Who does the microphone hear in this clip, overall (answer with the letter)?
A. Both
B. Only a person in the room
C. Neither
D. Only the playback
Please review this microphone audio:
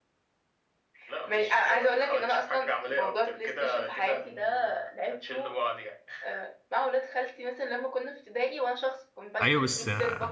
A